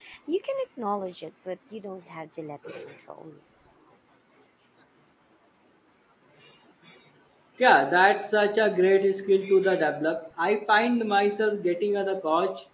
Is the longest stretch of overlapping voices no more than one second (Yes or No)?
Yes